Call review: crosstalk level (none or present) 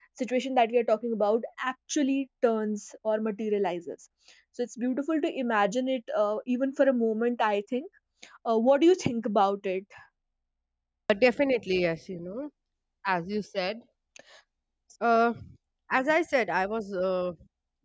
none